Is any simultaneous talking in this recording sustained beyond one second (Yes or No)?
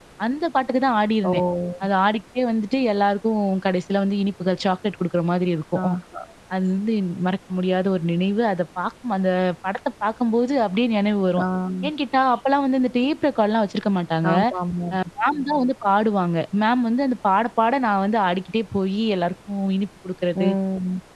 No